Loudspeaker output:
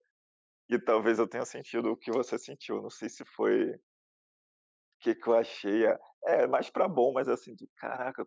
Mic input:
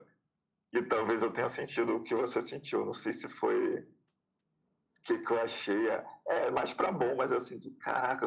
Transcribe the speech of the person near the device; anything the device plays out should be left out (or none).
none